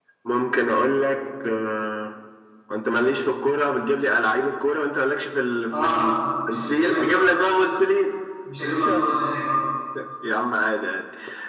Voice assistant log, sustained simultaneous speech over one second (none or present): present